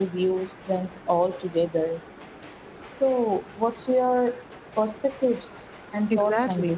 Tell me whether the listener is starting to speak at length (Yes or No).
Yes